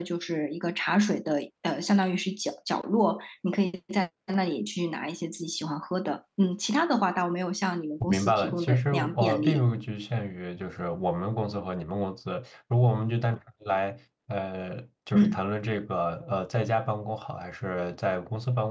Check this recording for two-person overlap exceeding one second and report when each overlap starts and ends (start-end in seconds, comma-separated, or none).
8.1-9.6